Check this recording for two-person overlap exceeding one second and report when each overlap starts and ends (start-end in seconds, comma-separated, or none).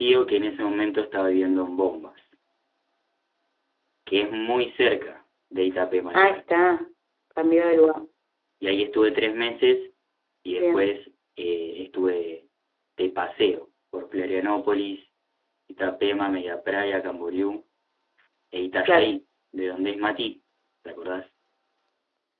none